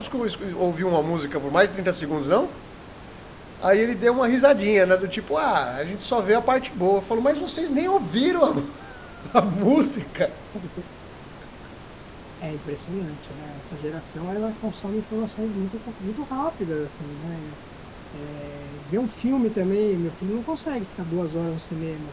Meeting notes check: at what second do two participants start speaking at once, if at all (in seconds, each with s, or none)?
none